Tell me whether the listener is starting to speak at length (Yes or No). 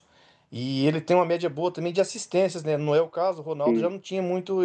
No